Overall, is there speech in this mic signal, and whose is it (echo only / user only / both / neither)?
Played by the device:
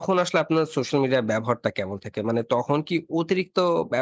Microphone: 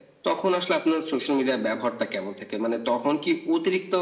echo only